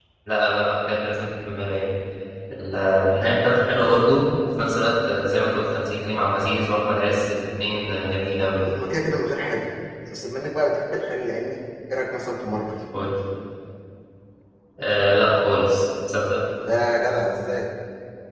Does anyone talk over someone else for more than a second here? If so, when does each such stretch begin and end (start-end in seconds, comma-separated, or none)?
none